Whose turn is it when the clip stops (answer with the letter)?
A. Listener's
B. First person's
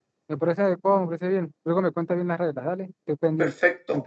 A